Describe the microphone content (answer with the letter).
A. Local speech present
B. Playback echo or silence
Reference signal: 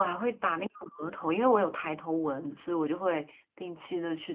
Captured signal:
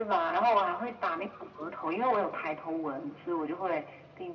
B